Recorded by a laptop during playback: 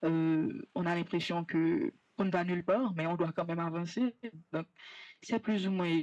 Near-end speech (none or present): none